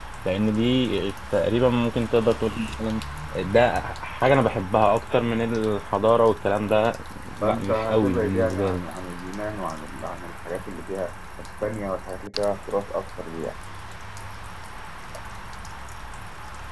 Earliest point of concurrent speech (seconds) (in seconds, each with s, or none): 7.4 s